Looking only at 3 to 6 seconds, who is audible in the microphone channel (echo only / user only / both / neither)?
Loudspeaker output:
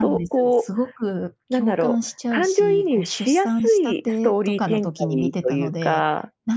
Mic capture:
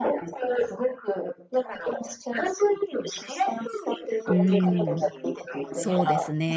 both